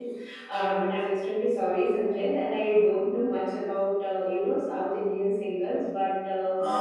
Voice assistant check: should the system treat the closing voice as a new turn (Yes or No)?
No